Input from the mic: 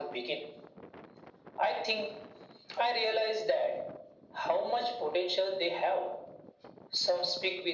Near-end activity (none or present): none